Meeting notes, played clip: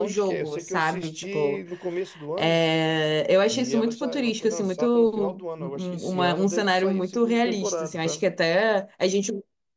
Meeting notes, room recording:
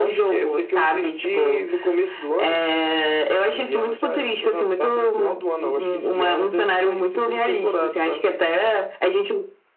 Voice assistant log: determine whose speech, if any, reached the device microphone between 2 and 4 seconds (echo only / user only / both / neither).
echo only